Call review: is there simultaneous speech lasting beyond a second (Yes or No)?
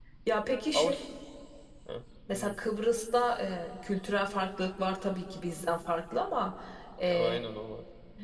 No